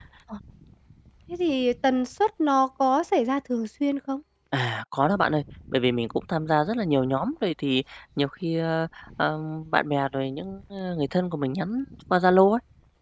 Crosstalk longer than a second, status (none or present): none